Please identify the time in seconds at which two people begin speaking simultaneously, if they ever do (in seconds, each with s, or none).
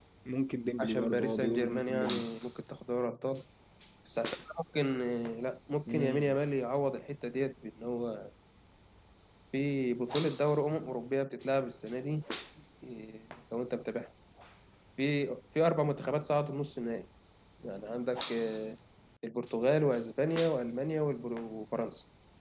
0.8 s